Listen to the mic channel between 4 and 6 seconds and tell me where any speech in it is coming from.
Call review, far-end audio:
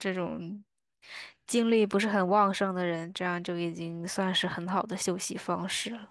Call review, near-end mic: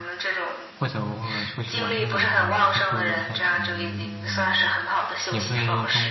both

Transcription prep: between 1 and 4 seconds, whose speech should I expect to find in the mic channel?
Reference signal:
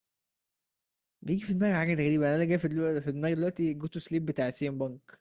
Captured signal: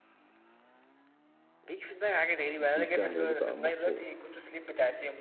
both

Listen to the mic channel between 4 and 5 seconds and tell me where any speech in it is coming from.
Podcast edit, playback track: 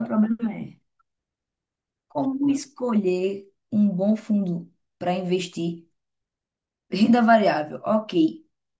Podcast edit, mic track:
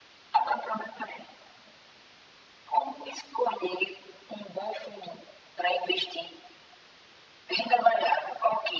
echo only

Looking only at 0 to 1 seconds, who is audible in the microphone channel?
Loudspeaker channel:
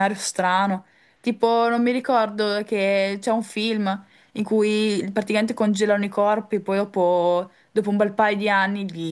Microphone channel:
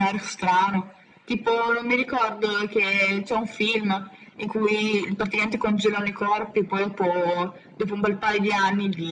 echo only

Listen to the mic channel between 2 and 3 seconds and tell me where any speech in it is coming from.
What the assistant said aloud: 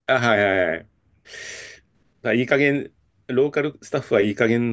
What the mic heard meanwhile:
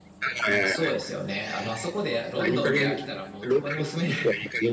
both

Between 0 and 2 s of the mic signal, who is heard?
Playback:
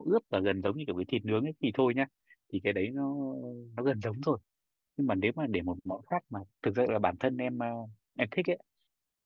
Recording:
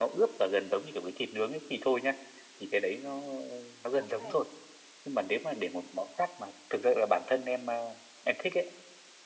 echo only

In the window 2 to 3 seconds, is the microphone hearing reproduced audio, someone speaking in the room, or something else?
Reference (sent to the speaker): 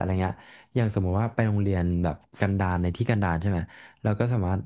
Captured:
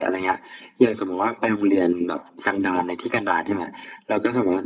echo only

